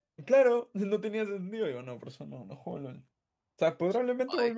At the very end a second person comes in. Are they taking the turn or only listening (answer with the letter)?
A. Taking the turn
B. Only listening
B